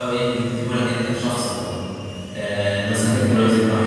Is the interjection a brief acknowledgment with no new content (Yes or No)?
Yes